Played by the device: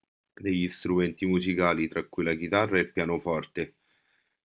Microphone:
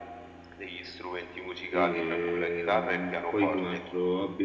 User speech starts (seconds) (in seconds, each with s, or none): 1.6 s